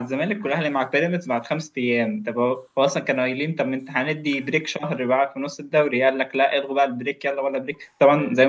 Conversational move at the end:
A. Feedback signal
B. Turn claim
A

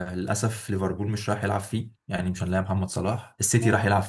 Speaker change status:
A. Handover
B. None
B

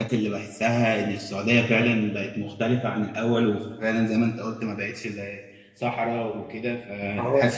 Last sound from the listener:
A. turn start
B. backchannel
A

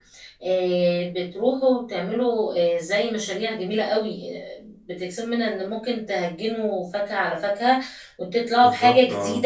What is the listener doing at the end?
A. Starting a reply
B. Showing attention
B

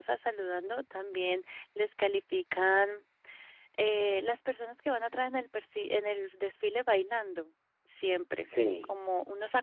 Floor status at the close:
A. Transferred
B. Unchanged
B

